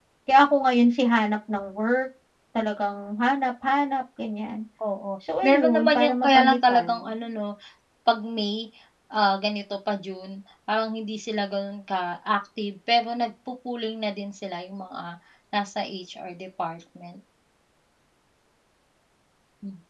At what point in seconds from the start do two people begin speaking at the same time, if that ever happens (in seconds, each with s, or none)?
5.4 s